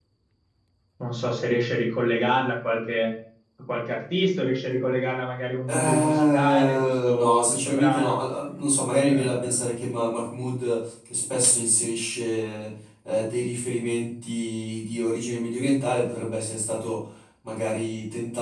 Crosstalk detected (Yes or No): Yes